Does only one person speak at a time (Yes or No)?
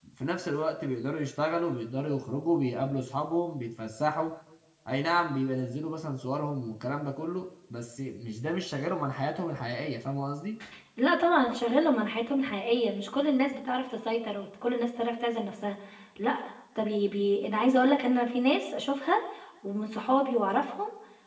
Yes